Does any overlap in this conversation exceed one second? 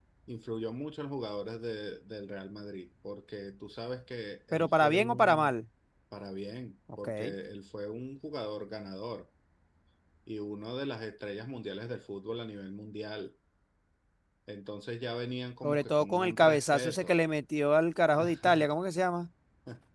Yes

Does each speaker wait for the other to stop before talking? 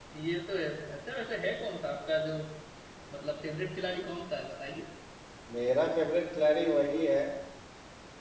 Yes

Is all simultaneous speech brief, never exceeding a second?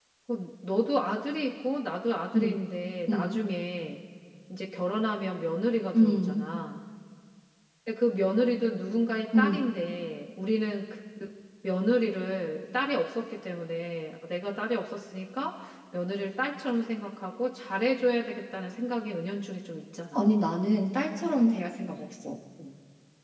Yes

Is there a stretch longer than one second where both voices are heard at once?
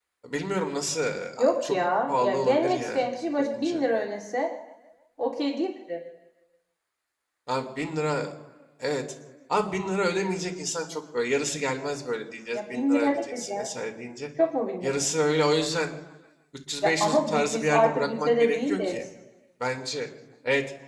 Yes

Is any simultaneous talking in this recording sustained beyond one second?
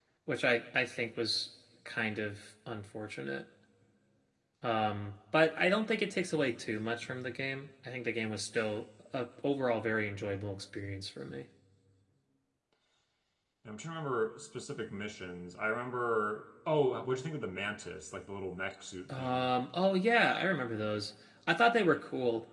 No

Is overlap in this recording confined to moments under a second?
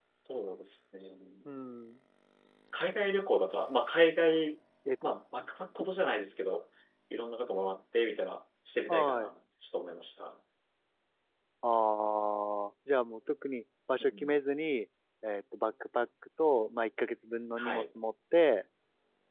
Yes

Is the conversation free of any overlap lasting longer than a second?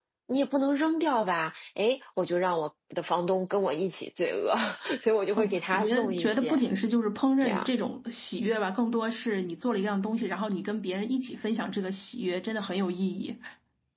No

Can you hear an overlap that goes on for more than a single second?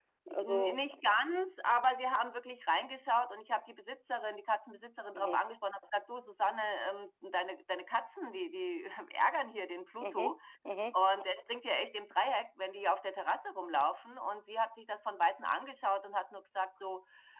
No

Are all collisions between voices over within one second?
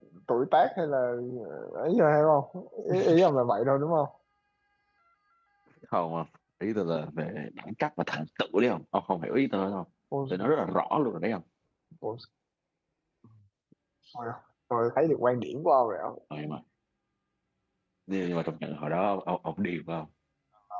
Yes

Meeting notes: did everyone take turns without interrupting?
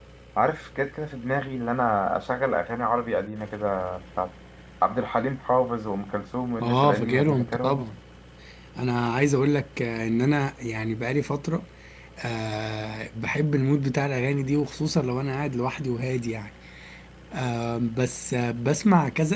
No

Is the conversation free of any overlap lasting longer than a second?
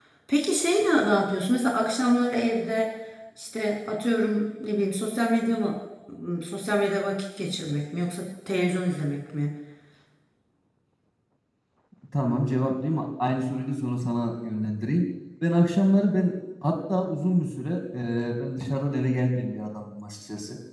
Yes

